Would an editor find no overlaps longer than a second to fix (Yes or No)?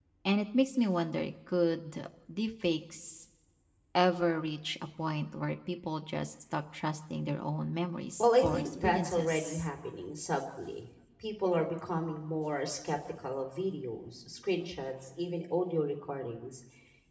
No